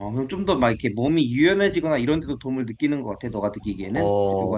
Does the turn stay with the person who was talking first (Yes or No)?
No